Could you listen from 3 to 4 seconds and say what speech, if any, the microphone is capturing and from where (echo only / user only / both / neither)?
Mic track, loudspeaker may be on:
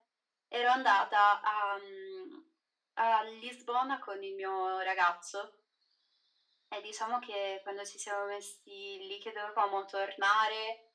echo only